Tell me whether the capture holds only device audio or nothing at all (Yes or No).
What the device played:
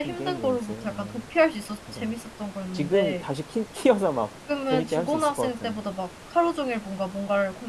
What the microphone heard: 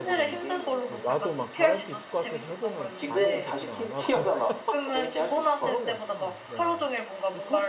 No